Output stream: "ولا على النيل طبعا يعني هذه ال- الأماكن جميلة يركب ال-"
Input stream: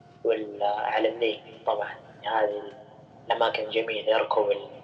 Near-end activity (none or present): none